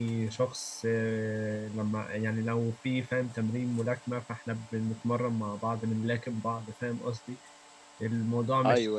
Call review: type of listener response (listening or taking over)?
listening